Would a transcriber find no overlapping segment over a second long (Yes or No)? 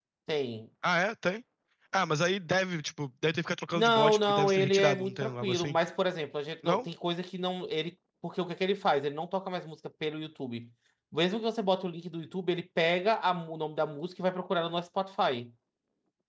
No